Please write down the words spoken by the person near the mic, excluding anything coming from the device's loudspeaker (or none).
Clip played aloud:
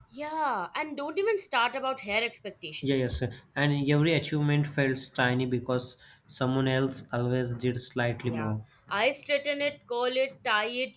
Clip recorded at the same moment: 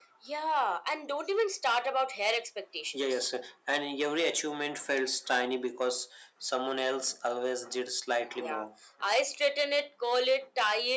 none